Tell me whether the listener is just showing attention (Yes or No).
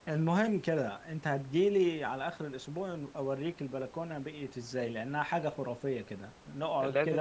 Yes